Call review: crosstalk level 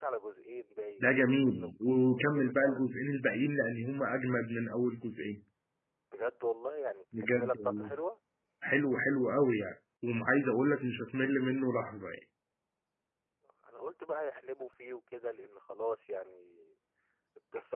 present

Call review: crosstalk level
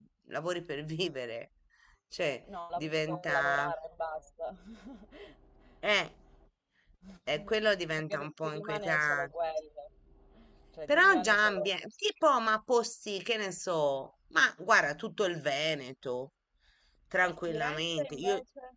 present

